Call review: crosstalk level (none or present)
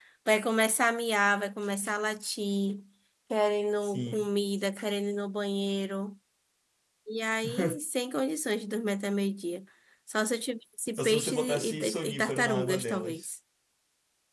present